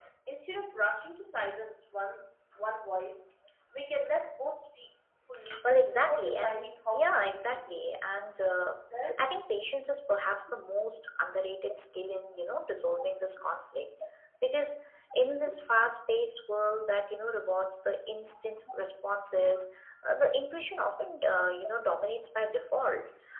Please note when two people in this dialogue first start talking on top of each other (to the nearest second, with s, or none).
6 s